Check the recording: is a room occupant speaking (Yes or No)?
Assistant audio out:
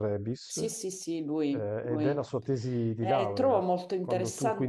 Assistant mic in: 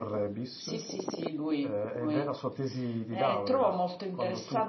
No